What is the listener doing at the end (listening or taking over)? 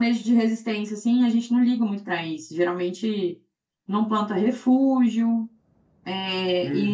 taking over